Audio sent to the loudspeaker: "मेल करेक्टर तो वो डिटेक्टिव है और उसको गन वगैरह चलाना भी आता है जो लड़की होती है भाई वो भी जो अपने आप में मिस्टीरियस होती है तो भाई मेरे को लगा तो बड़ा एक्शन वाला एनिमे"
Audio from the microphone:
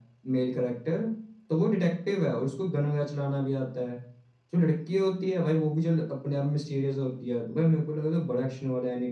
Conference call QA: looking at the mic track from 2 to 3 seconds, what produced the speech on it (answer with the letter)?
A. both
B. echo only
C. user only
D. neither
B